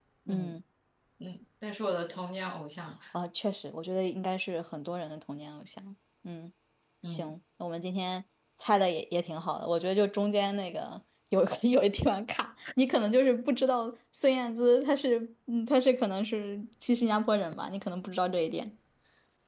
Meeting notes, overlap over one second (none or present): none